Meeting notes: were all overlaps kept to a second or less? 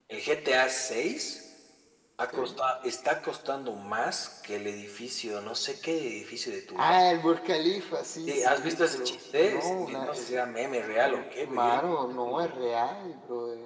No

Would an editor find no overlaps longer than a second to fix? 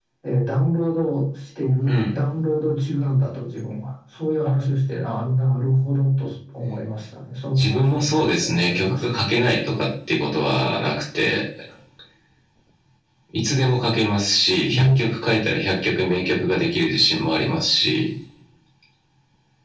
No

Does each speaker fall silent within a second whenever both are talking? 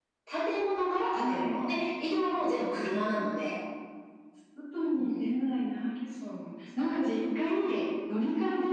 Yes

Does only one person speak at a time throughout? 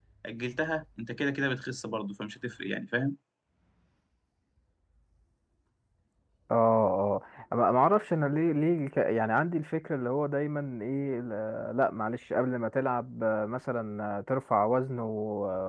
Yes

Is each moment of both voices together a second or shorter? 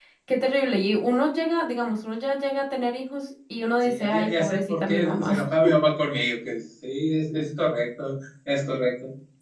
No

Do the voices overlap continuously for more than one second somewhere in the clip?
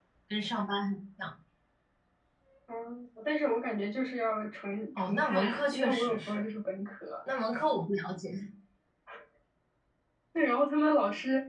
Yes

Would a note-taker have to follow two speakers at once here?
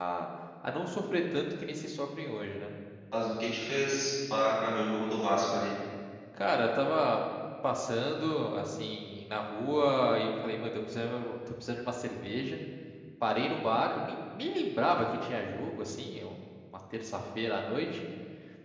No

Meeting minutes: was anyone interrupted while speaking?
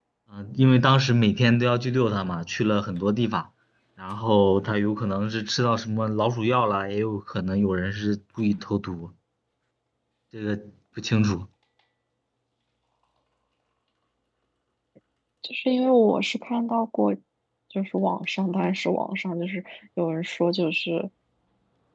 No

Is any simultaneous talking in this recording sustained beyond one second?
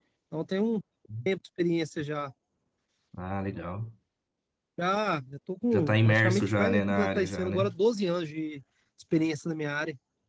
Yes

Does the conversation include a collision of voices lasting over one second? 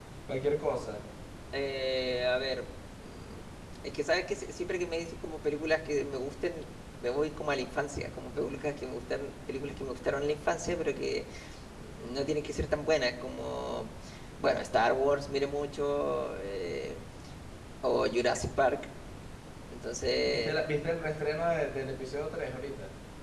No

